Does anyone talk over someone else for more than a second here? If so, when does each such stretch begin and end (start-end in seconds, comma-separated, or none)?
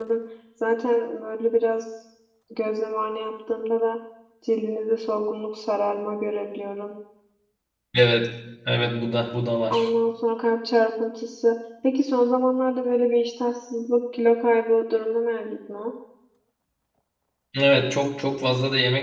none